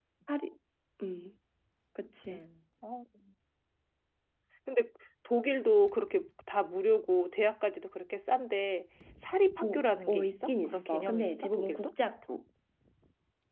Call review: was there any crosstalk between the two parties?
Yes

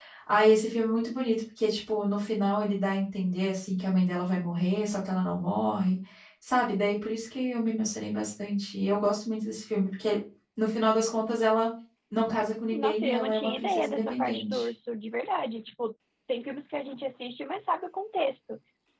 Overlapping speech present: Yes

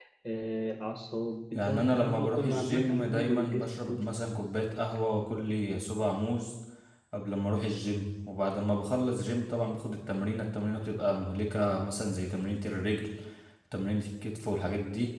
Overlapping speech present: Yes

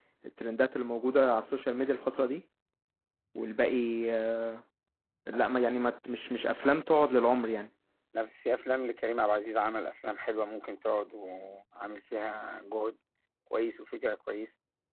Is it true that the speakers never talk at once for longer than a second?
Yes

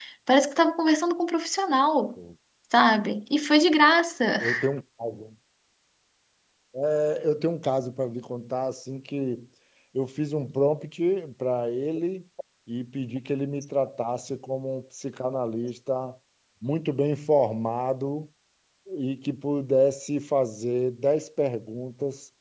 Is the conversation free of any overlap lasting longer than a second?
Yes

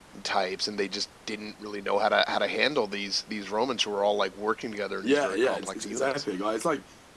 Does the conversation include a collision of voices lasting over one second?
Yes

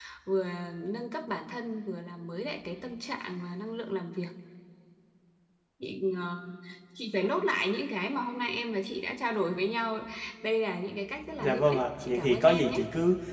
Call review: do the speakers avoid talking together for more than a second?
No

